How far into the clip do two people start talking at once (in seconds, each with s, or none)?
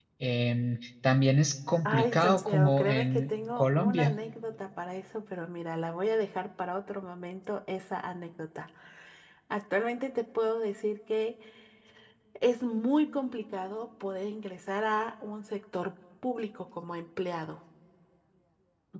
1.9 s